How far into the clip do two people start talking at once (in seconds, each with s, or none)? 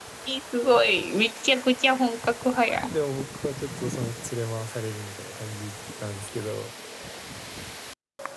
none